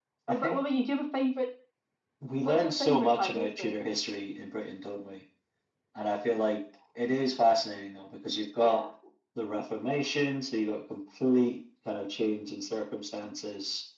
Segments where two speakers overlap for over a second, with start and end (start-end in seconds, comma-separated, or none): 2.4-3.8